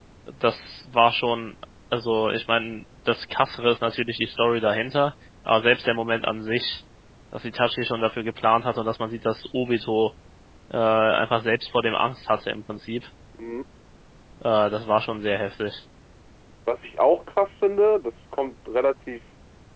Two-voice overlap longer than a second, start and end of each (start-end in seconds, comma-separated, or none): none